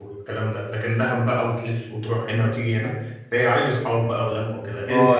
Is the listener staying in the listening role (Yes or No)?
No